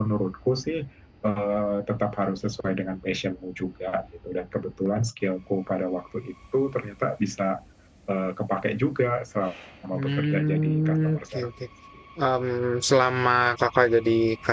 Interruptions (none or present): present